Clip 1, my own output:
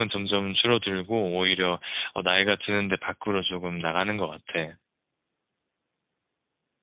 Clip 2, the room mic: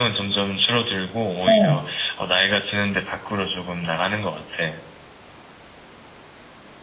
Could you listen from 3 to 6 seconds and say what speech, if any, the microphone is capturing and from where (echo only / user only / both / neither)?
echo only